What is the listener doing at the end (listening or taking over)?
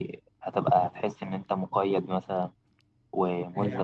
listening